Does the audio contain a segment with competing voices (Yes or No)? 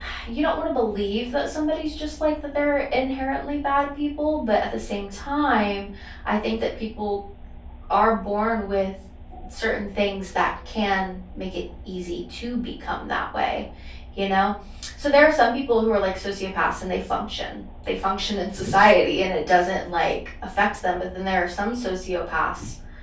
No